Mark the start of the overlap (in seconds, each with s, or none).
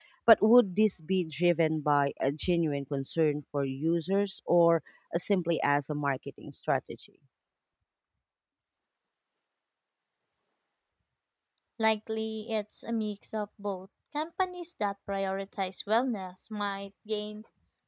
none